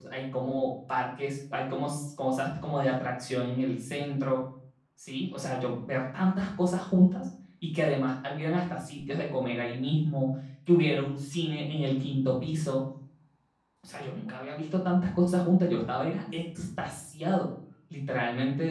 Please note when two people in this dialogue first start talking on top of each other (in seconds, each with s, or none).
none